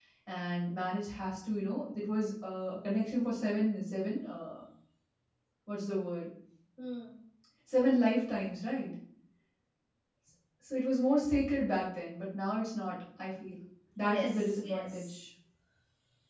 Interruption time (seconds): 14.0 s

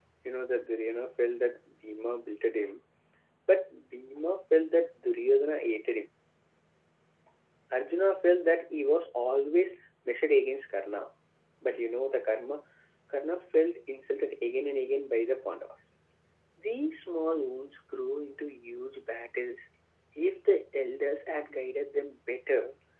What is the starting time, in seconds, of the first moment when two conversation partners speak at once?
none

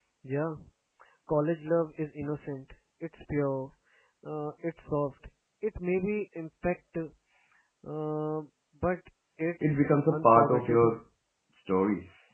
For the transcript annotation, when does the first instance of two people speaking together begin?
9.6 s

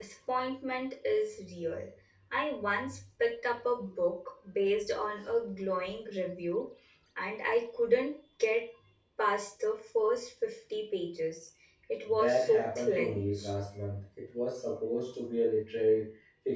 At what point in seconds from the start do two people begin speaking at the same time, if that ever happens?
12.2 s

